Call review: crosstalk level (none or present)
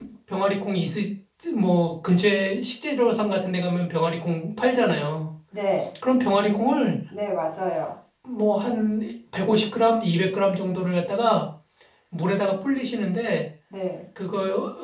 none